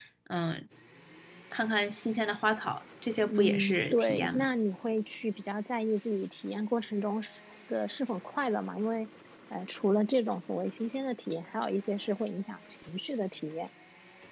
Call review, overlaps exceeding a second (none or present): present